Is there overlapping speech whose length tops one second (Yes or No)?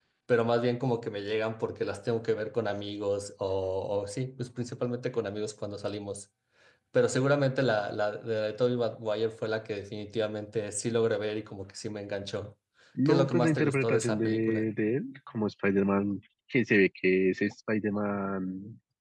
Yes